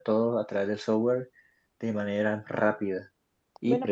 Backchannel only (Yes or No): No